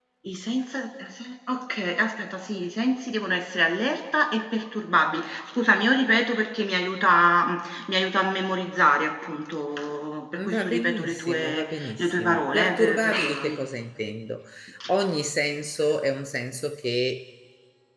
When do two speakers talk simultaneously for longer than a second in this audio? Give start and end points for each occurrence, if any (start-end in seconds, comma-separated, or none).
10.5-13.6